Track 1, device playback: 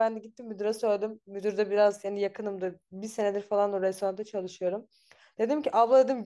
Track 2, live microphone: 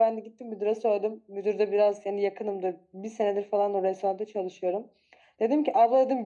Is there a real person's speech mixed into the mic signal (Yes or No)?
No